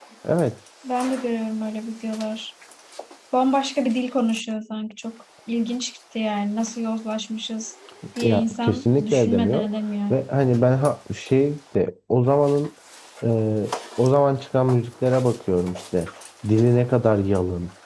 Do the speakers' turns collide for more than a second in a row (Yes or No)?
Yes